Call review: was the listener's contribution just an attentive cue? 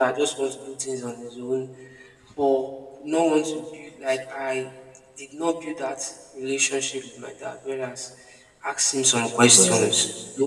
Yes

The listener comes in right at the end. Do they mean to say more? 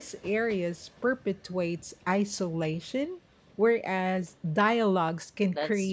Yes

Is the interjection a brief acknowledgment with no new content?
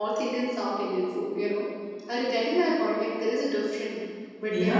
No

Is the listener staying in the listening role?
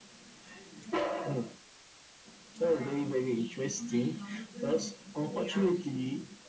Yes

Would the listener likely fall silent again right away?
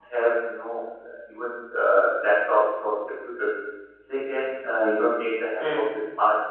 Yes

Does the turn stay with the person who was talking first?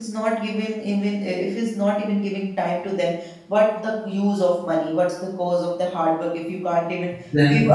Yes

